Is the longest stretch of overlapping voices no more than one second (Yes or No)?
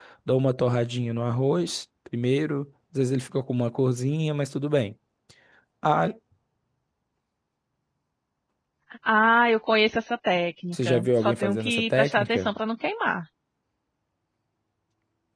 No